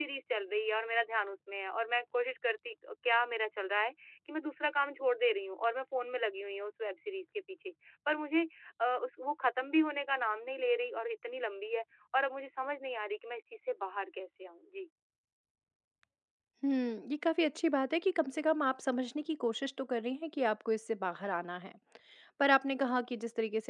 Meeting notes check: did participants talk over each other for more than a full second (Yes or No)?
No